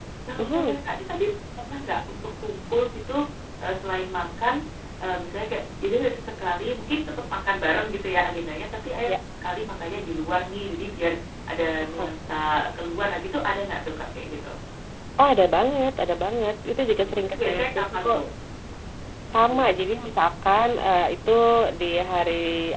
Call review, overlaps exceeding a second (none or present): present